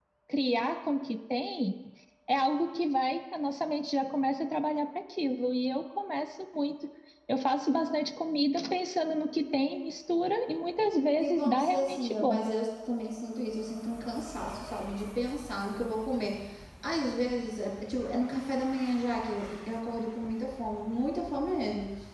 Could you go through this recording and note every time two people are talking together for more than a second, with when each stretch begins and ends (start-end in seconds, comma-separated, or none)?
11.2-12.4